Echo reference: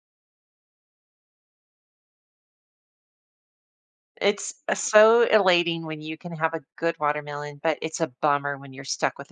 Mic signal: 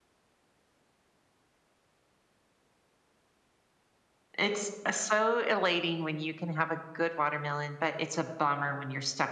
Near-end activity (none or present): none